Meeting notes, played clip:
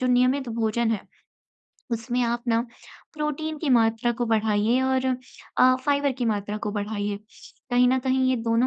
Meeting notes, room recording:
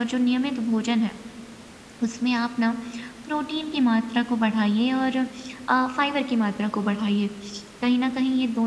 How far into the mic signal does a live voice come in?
none

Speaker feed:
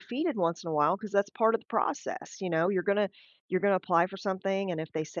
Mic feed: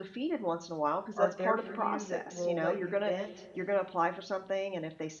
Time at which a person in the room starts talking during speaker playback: 1.1 s

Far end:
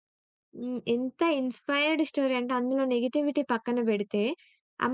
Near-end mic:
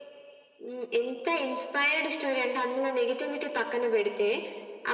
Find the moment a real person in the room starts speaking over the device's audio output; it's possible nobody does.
none

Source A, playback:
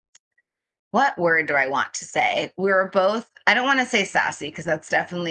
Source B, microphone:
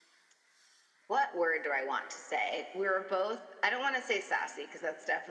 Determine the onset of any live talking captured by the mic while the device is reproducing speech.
none

